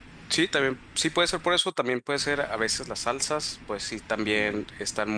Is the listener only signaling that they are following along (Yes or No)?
Yes